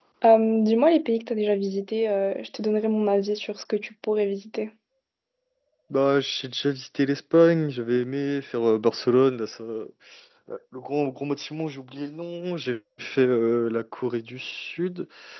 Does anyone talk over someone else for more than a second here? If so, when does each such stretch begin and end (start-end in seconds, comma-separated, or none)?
none